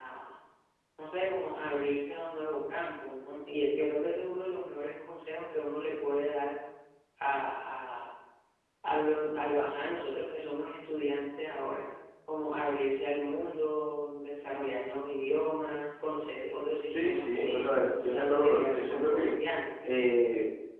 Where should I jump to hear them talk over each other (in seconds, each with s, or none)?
16.9 s